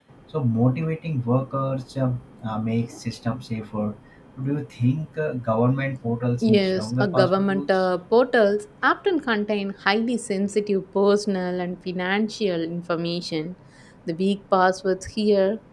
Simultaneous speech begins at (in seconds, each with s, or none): 6.4 s